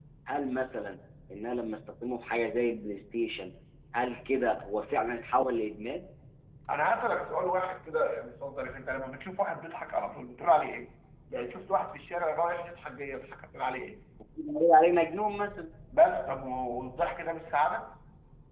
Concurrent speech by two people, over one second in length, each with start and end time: none

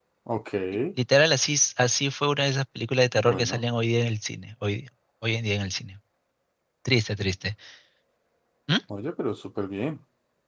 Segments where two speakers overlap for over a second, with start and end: none

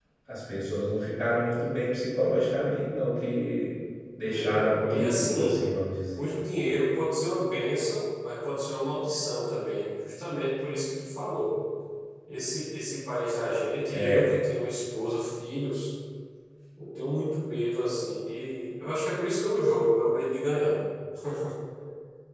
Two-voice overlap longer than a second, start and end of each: 4.3-5.6

